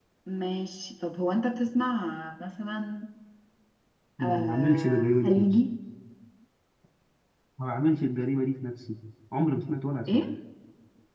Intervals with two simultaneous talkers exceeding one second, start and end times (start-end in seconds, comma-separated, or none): 4.2-5.5